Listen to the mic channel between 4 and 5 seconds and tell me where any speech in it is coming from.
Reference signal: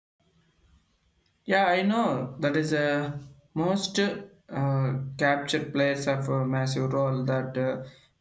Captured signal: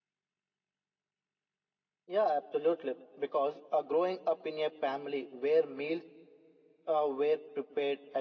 user only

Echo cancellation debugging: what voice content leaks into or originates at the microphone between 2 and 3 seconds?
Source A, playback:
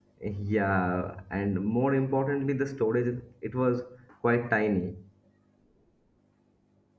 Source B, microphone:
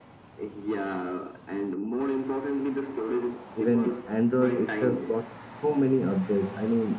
echo only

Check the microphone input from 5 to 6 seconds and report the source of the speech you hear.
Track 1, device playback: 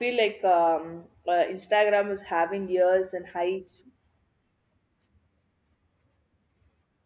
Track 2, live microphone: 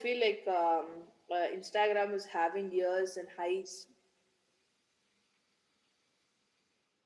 neither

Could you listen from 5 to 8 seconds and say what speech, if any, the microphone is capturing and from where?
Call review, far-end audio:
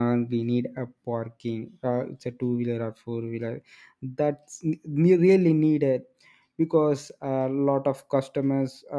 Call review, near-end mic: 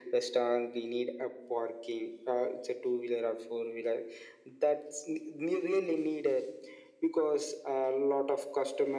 echo only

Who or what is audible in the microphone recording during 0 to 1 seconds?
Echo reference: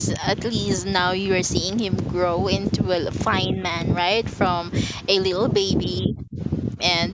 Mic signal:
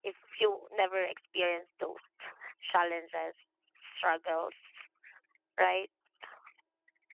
user only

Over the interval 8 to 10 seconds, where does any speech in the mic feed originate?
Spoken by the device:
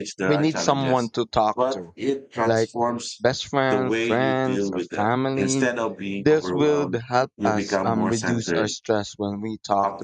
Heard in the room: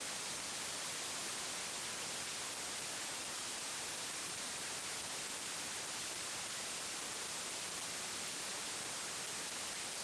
neither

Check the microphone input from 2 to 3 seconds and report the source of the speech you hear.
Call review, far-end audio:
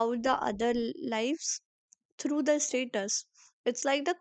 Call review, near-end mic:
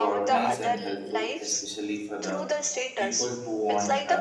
both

